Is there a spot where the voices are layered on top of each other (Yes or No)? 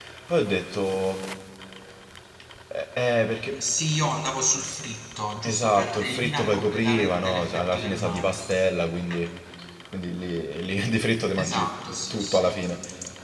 Yes